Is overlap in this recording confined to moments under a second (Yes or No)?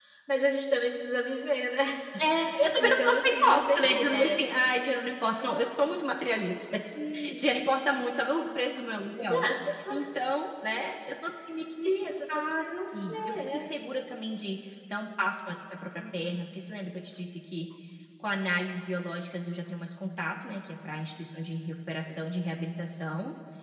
No